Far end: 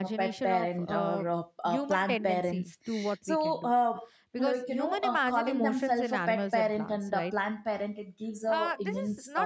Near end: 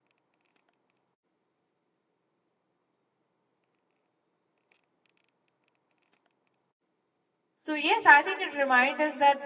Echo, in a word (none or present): none